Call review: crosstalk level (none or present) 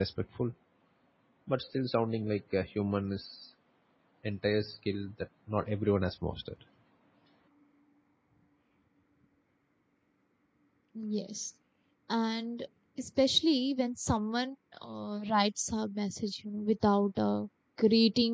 none